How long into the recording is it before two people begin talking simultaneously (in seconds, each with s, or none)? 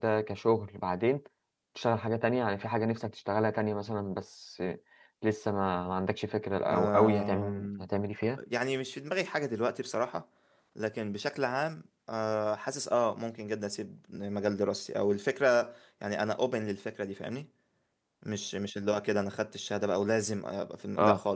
6.7 s